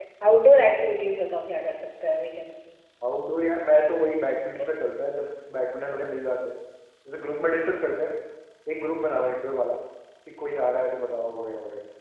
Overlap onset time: none

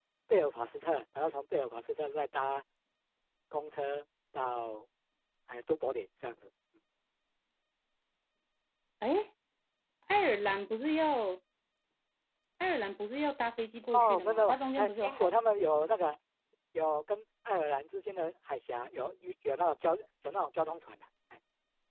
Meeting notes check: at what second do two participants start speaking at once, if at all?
13.9 s

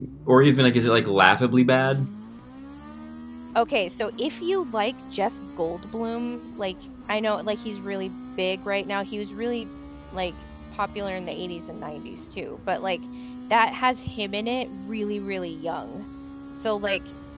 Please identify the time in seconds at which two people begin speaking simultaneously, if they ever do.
none

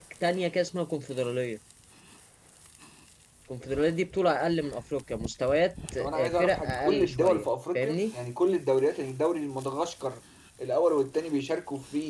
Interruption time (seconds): 6.0 s

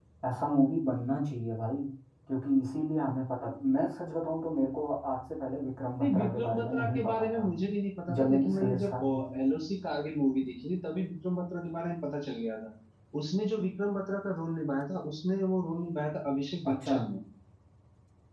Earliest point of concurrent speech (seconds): 6.0 s

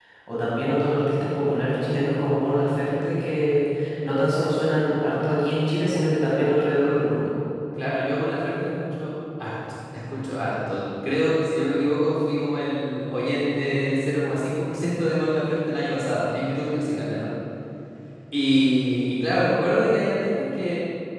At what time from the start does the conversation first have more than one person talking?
none

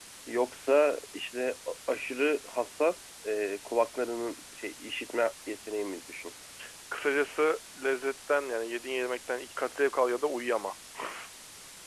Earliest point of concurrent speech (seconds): none

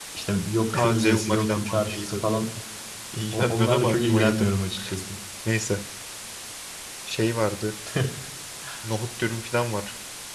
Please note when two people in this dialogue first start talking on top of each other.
0.7 s

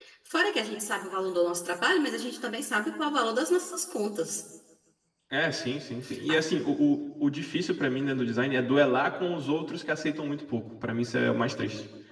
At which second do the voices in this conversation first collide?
none

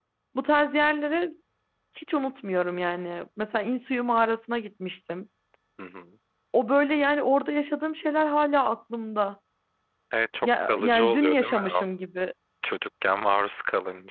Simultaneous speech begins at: 10.4 s

